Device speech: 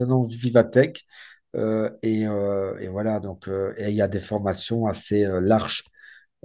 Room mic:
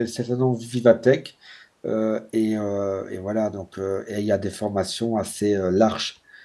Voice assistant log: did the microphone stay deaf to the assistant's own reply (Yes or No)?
No